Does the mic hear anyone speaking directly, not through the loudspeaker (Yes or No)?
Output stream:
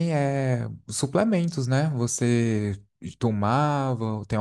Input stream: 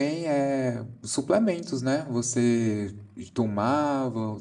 No